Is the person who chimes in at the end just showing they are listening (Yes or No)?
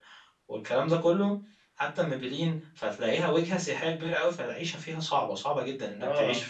Yes